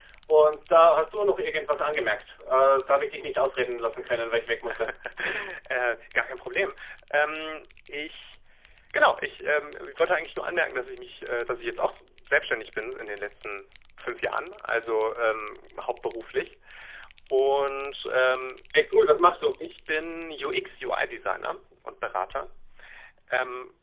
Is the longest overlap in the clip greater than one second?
No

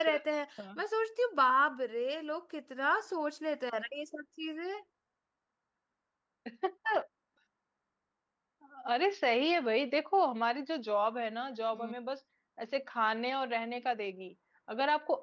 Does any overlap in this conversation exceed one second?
No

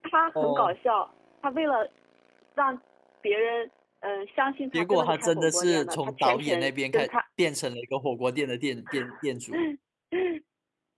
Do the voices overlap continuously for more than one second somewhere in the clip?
Yes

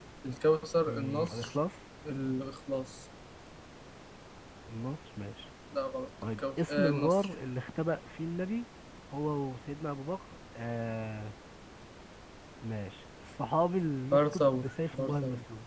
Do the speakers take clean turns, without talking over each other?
No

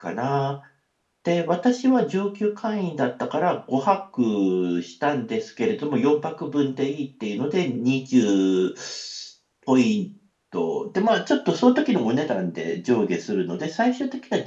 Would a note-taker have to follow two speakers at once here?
No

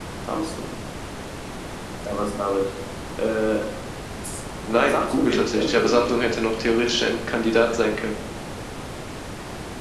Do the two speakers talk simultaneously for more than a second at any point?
Yes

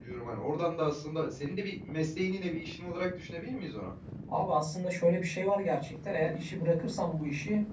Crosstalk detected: No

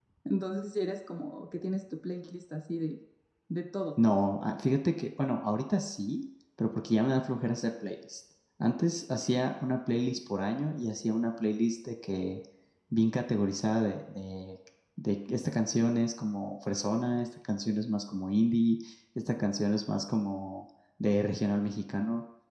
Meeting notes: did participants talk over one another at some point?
No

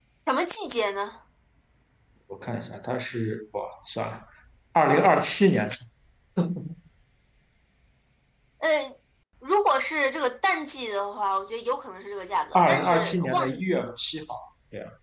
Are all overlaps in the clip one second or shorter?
No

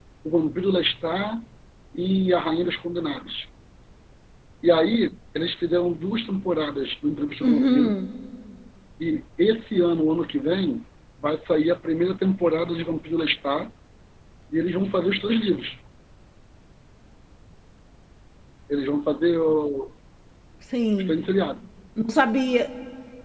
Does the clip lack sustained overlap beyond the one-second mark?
Yes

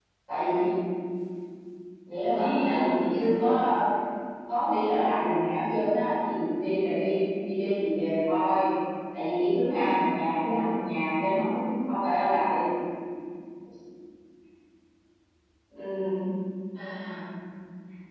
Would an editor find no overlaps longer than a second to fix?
No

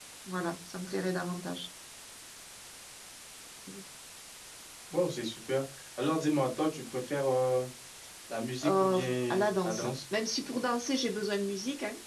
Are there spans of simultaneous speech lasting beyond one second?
Yes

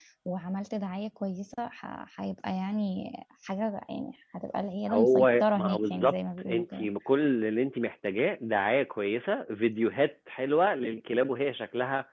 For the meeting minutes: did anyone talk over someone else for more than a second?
Yes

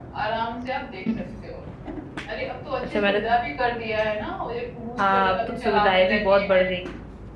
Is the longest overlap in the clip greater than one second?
Yes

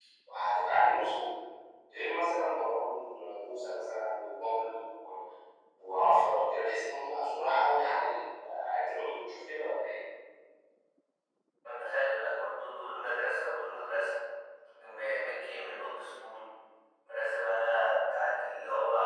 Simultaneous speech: No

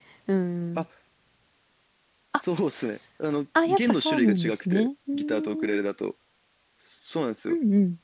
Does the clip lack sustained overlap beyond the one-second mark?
No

